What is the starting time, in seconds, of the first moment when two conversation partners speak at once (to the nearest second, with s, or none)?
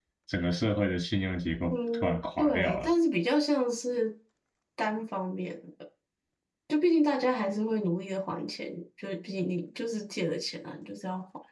2 s